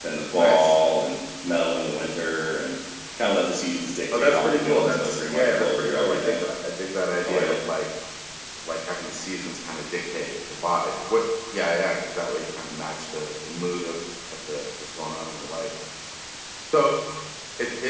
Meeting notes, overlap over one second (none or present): present